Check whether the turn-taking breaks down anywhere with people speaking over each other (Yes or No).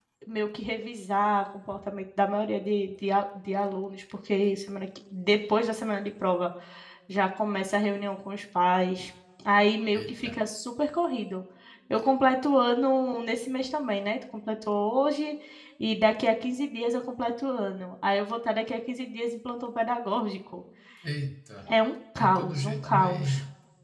Yes